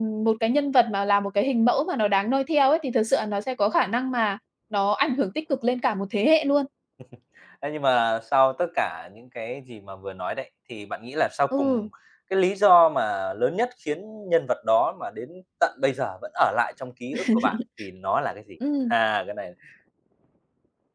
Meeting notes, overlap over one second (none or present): none